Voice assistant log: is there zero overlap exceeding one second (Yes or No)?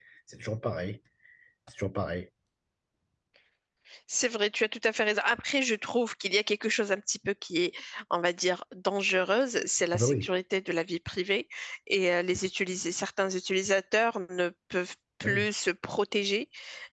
Yes